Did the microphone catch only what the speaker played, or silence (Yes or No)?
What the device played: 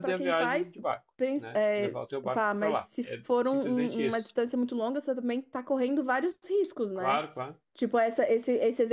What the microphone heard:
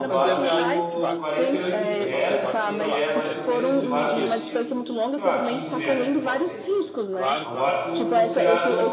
No